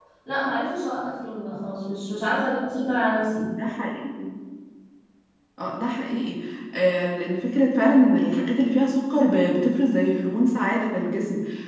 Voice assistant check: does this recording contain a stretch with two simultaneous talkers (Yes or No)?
No